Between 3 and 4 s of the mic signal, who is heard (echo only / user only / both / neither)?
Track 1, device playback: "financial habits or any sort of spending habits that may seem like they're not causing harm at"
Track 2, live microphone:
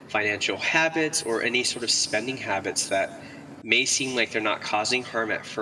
echo only